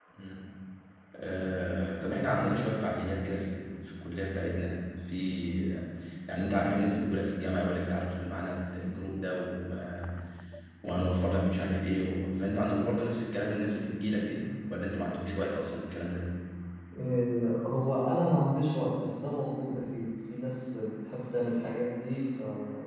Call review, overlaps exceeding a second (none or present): none